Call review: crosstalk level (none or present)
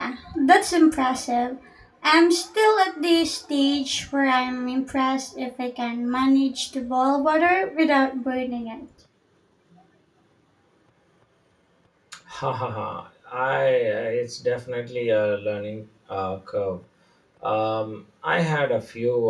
none